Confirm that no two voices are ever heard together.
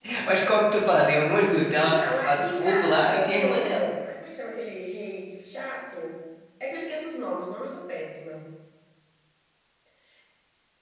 No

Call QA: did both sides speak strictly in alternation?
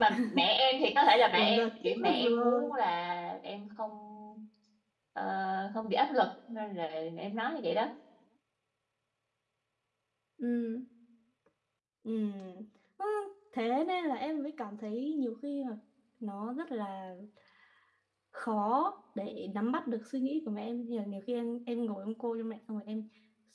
No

